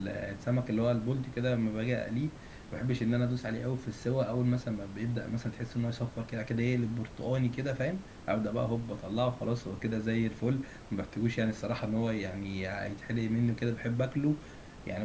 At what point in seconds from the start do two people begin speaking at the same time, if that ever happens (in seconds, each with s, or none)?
none